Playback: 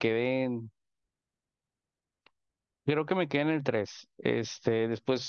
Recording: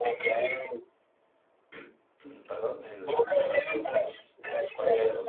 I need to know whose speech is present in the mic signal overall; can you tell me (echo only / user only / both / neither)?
both